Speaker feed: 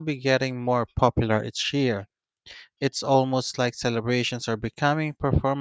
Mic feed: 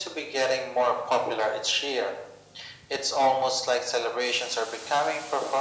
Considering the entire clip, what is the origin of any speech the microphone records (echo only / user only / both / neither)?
echo only